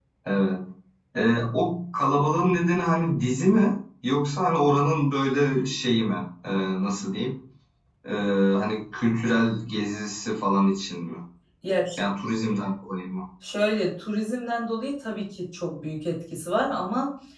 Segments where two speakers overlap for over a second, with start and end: none

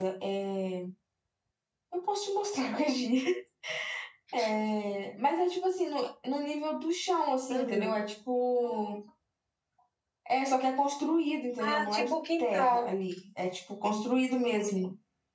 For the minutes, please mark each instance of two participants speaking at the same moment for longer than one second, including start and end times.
11.6-12.9

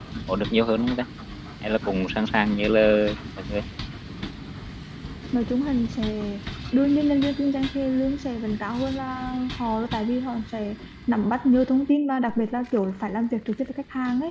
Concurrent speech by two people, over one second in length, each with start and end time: none

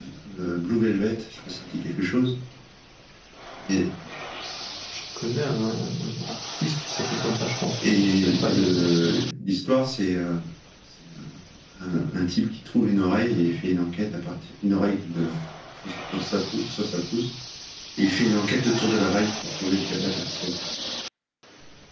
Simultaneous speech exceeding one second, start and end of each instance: 7.8-9.1

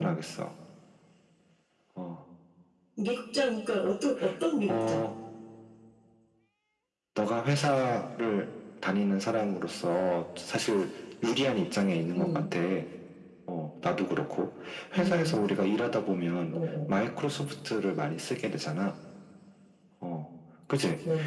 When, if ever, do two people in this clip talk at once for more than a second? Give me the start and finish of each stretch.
none

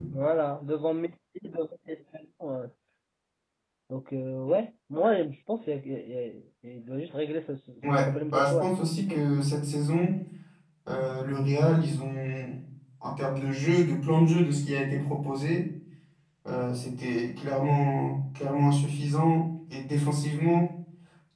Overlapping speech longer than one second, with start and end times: 7.8-9.2

